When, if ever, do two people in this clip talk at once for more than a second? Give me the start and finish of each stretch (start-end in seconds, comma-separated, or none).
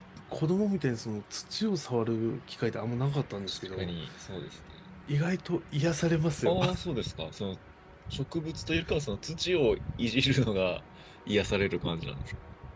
none